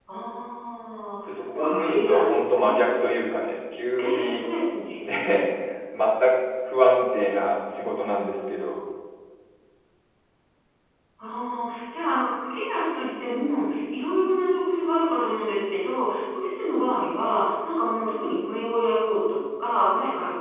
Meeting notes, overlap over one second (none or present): present